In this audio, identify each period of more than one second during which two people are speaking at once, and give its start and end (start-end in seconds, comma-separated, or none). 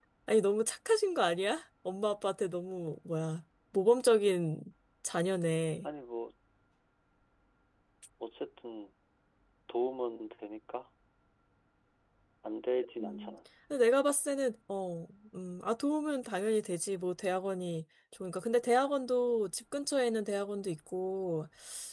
none